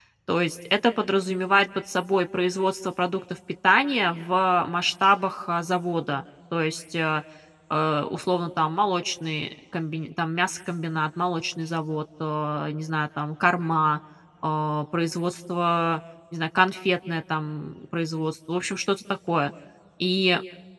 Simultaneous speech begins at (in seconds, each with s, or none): none